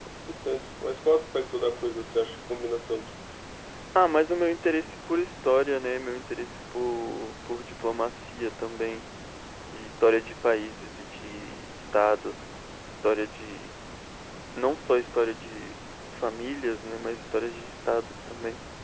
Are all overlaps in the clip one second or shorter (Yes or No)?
Yes